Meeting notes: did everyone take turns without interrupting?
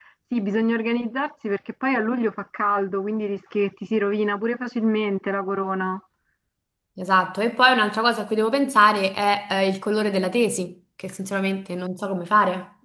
Yes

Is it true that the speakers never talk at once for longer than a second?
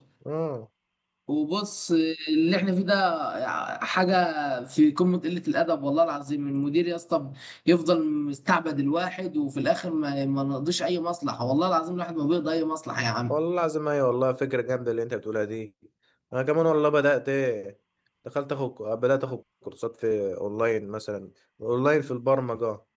Yes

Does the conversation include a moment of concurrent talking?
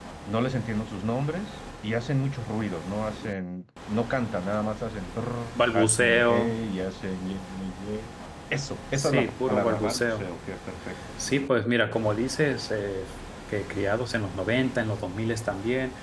Yes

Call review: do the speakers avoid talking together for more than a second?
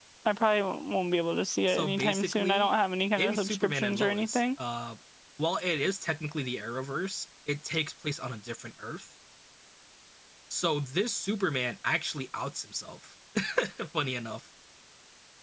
No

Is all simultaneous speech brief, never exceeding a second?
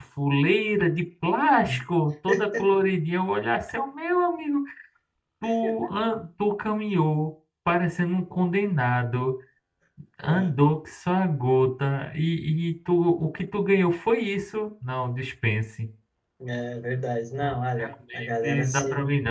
No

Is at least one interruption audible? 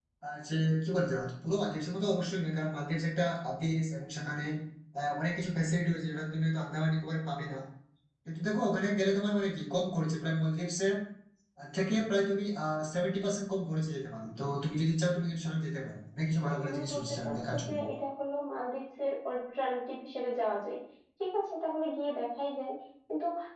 Yes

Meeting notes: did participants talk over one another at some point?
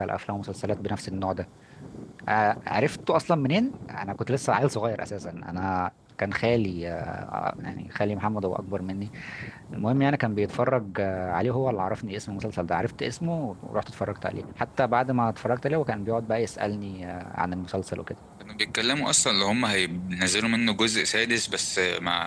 No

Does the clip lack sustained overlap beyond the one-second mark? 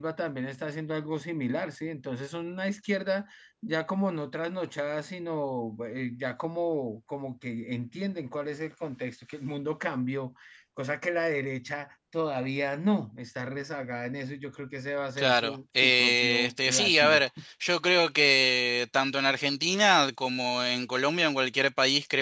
No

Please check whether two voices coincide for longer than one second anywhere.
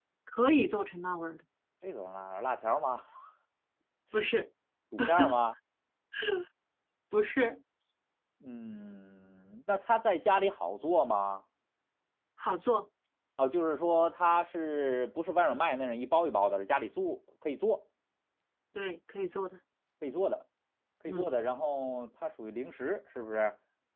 No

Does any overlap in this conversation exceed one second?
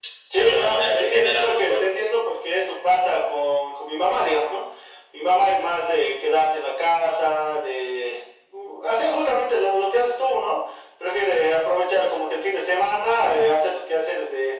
Yes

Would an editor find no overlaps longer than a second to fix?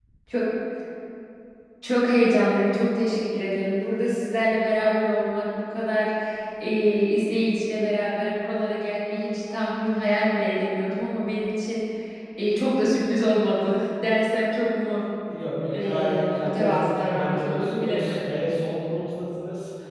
No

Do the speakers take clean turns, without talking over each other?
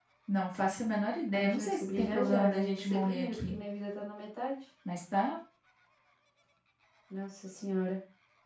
No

